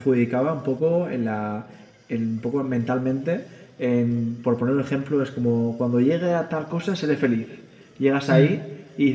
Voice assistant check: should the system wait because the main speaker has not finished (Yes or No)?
Yes